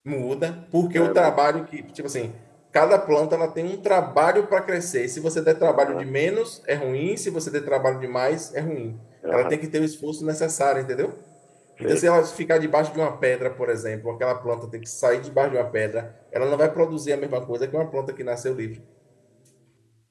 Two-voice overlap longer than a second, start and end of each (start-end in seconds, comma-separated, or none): none